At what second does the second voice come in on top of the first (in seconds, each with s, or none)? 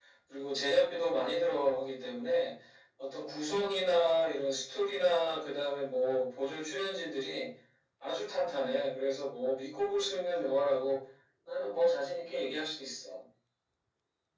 none